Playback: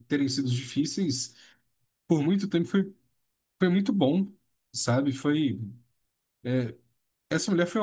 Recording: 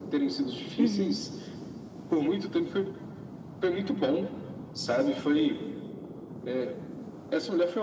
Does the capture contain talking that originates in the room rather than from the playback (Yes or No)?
Yes